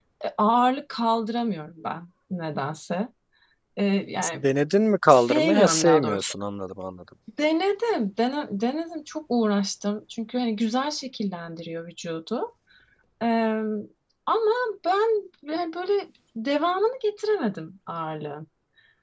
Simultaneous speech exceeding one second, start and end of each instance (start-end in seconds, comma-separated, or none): 5.1-6.3